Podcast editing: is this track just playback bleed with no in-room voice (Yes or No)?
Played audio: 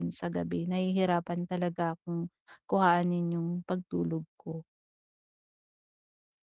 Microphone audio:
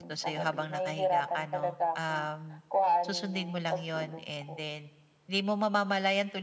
No